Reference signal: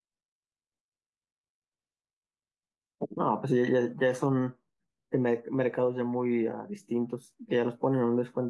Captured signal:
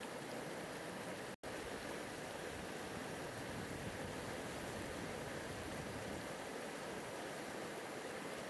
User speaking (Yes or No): No